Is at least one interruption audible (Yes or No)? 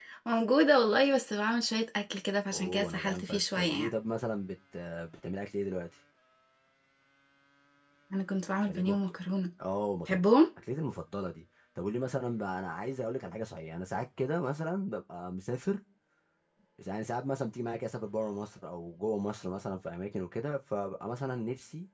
Yes